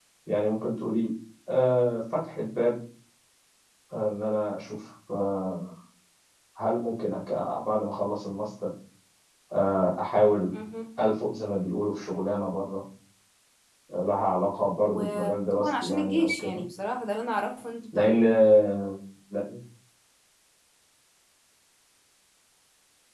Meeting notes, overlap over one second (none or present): present